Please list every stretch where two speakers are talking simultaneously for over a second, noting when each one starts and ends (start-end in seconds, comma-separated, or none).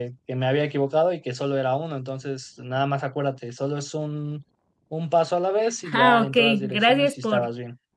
5.9-7.5